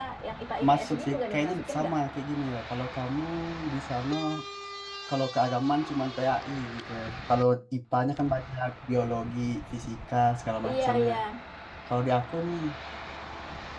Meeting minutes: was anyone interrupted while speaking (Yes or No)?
Yes